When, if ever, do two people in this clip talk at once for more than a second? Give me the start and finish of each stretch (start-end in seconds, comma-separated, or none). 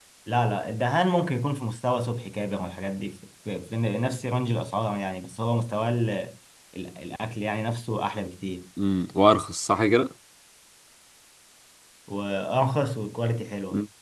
none